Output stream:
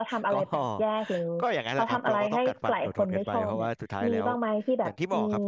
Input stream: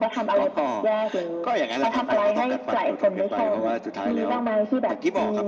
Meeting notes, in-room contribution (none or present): none